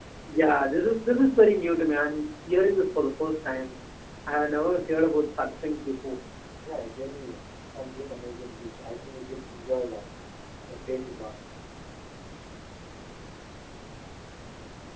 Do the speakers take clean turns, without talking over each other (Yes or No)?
Yes